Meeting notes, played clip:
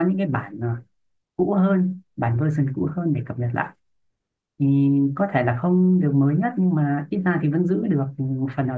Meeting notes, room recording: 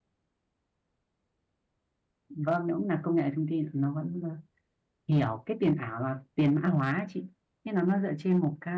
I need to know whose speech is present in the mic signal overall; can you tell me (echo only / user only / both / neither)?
user only